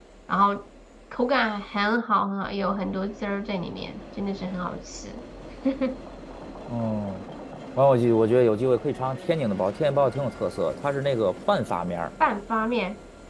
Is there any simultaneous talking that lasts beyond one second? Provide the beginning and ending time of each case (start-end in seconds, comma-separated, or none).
none